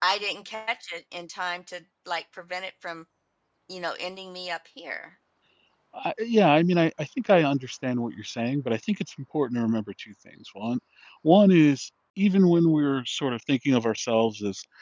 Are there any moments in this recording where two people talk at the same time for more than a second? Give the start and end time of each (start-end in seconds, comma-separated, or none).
none